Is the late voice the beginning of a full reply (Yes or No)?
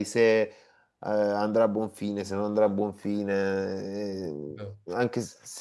No